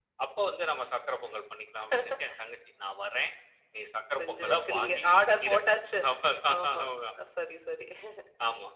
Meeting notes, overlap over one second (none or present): present